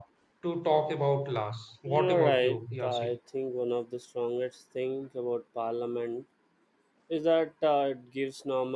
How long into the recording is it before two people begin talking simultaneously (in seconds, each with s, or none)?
1.9 s